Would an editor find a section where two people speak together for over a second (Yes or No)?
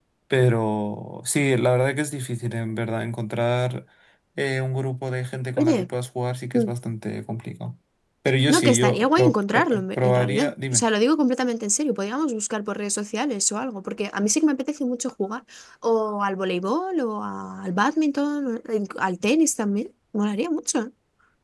Yes